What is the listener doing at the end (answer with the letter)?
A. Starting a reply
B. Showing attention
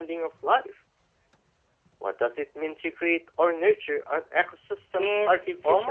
A